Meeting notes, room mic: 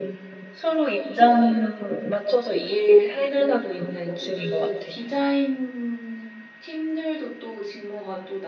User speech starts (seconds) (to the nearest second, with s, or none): 4 s